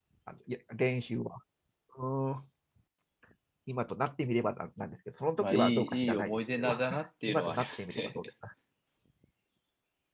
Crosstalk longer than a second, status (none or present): present